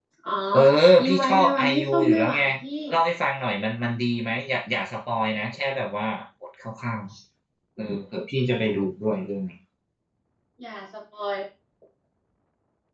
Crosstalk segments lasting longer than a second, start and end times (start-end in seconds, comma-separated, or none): 1.0-2.4